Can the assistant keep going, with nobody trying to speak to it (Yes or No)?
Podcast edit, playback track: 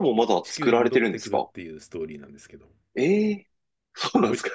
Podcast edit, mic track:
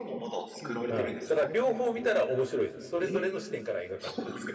No